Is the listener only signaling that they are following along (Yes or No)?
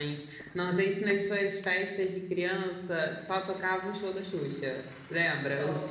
Yes